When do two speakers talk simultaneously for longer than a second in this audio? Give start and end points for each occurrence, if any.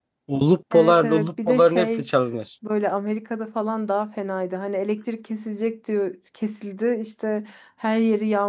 0.7-2.1

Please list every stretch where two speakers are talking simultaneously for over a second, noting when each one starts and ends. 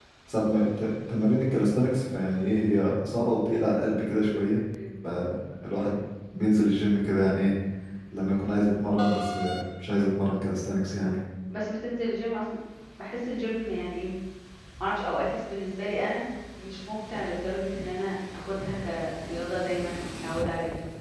none

